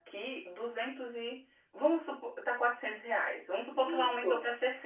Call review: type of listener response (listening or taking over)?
listening